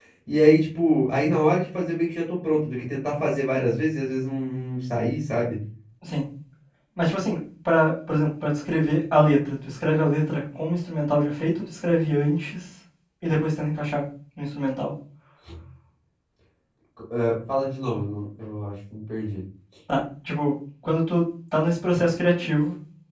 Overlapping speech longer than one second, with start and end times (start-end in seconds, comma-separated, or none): none